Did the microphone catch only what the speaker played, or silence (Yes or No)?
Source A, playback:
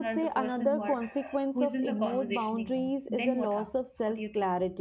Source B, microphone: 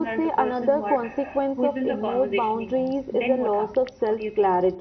Yes